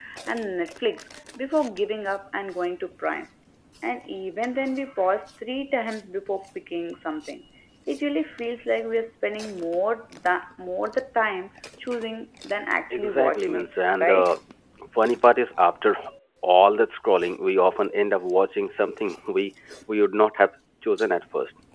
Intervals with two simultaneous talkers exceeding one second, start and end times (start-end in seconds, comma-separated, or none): 12.9-14.3